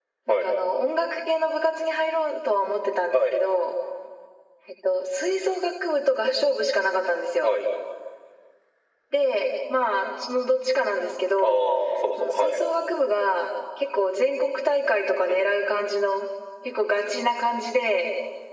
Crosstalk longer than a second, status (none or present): none